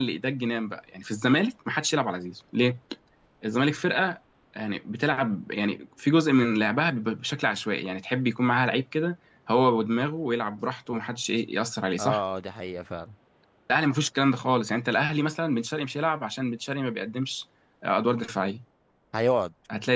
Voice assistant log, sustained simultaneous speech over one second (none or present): none